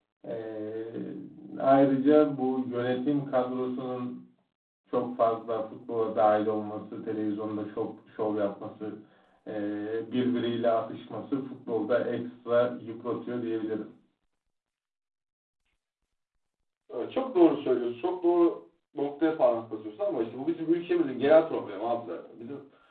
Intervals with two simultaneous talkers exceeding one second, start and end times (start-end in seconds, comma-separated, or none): none